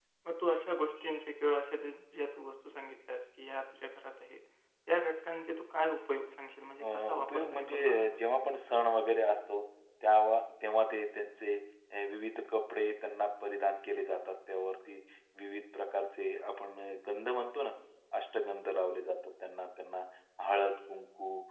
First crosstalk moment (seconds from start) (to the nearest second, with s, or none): 7 s